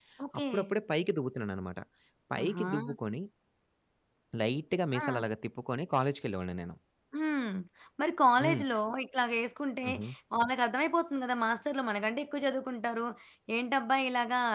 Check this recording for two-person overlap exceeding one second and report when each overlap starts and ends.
none

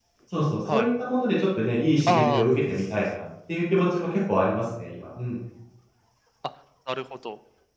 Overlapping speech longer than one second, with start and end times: none

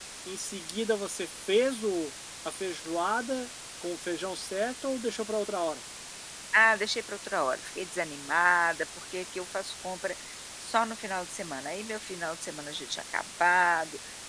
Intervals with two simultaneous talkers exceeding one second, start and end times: none

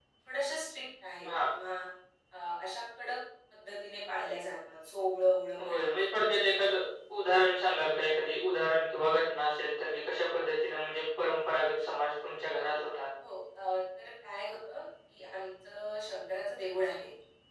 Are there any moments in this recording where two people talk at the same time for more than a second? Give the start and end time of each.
none

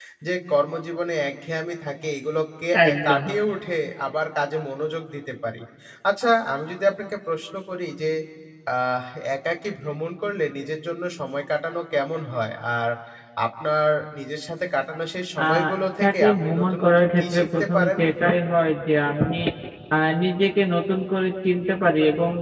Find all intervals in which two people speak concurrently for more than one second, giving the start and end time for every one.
16.0-17.9

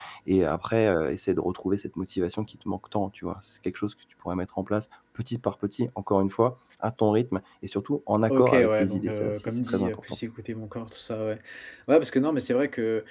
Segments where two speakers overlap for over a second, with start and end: 8.3-10.0

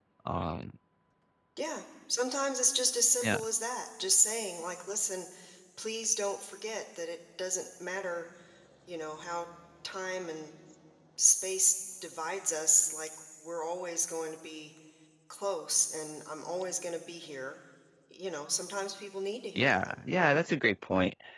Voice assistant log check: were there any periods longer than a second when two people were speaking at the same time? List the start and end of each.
none

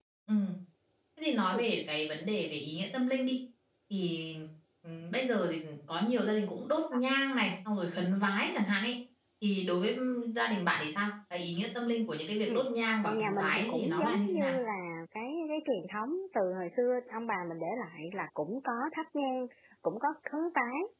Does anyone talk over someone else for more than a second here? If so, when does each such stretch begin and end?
13.0-14.6

